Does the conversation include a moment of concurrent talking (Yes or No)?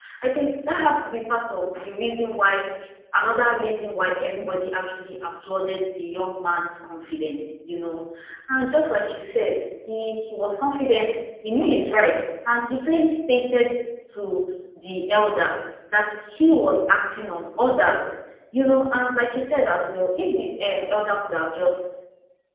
No